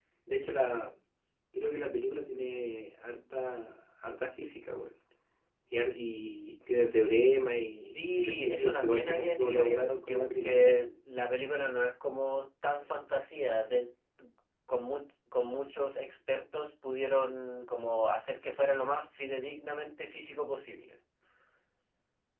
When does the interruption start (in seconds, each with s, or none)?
7.9 s